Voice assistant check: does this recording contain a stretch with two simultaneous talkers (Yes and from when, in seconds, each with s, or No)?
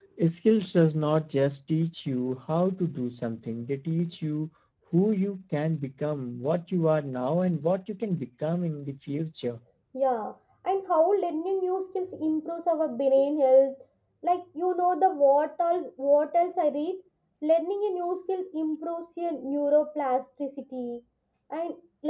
No